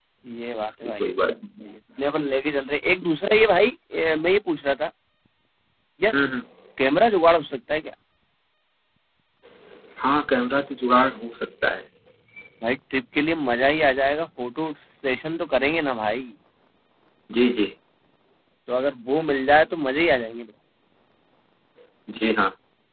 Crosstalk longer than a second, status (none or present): none